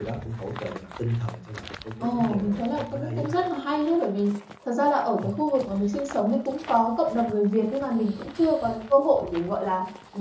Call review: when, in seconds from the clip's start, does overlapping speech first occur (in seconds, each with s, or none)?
2.0 s